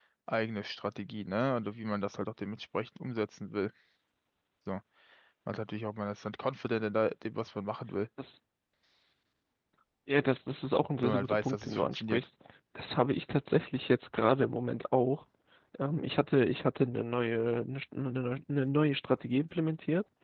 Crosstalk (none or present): present